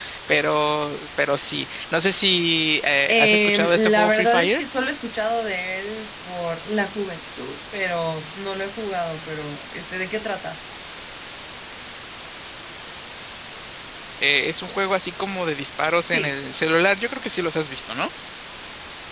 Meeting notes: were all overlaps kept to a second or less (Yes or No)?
No